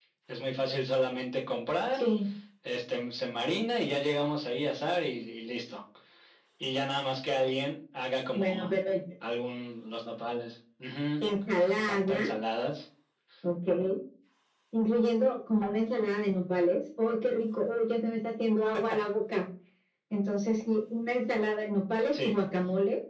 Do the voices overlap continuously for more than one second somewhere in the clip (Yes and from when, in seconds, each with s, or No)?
No